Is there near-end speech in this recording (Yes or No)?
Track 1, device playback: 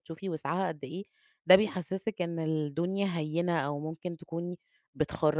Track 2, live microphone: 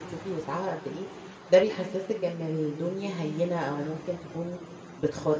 No